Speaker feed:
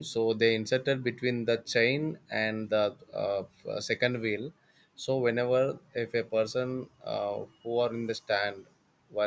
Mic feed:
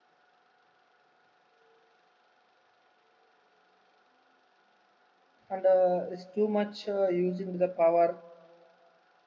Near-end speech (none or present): present